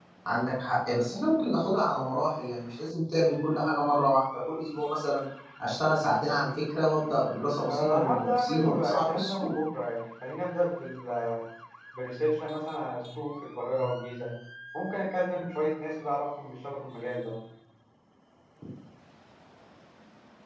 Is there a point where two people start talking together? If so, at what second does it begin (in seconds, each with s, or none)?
7.7 s